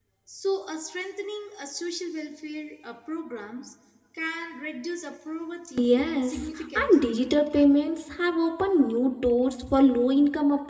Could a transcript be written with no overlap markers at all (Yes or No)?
No